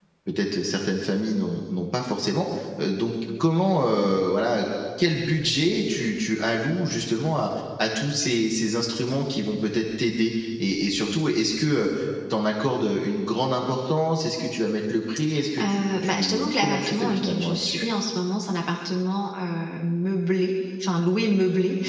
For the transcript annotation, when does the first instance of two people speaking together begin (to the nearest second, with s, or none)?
16 s